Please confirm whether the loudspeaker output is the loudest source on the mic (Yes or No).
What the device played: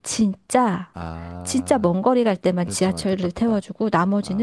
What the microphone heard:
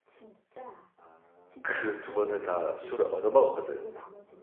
No